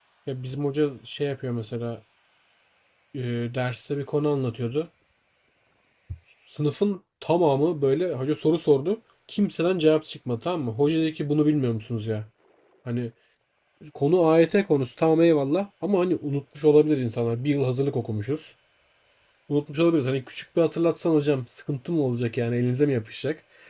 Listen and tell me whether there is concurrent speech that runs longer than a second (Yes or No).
No